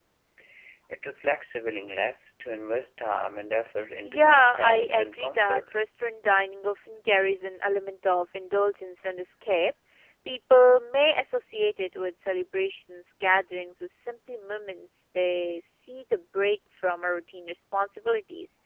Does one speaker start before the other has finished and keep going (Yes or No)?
Yes